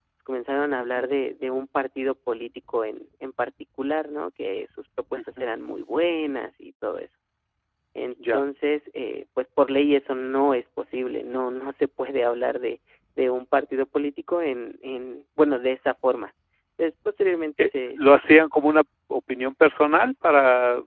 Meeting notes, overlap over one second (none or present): none